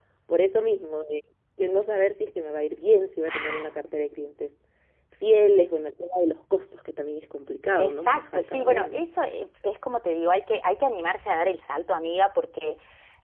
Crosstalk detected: Yes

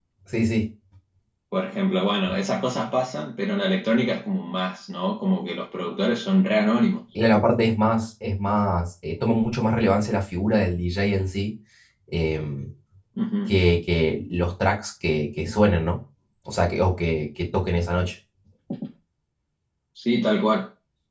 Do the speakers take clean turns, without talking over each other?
Yes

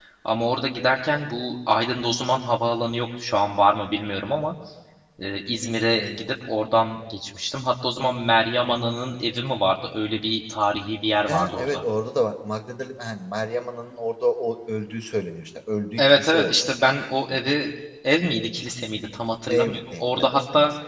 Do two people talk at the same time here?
Yes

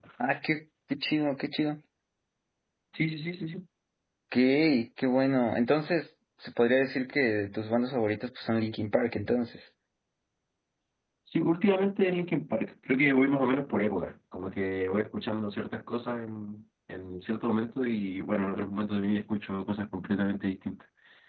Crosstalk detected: No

